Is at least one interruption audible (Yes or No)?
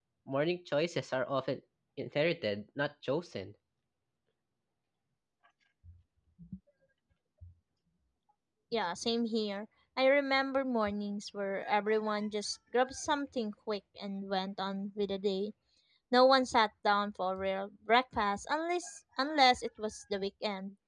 No